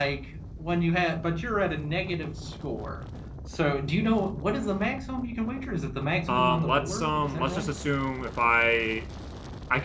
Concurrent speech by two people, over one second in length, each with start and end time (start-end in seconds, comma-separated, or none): 6.3-7.7